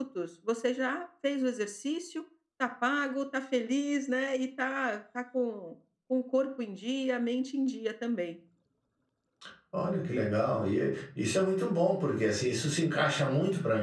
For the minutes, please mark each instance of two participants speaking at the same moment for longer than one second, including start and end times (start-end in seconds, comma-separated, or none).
none